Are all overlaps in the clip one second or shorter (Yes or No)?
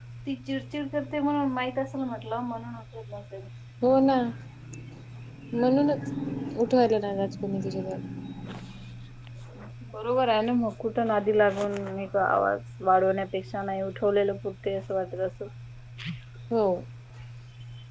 Yes